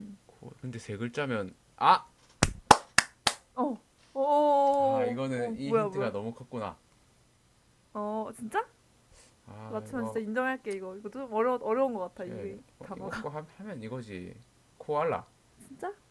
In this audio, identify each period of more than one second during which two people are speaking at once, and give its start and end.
4.8-6.1

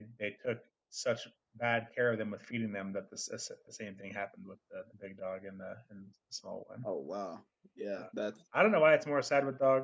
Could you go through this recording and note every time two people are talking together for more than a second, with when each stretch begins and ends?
none

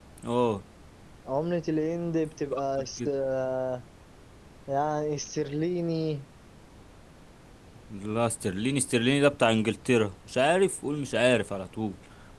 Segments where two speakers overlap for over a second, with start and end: none

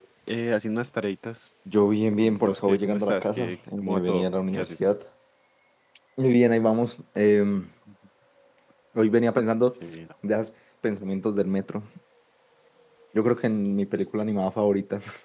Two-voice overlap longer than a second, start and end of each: 2.2-4.9

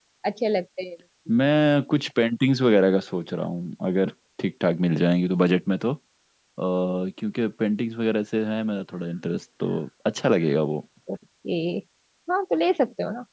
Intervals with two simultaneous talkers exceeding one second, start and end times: none

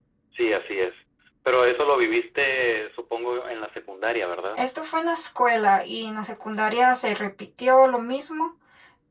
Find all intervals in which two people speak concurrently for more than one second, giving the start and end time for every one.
none

